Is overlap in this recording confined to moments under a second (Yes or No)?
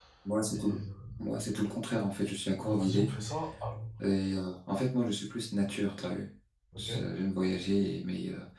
Yes